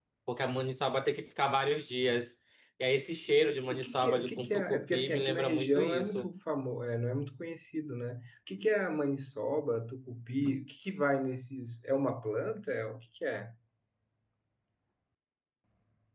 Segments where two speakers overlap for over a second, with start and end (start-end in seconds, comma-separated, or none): 3.7-6.3